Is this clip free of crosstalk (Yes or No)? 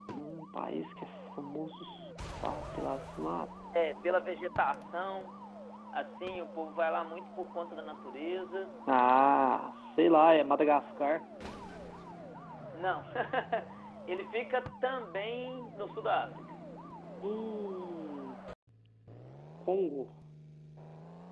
Yes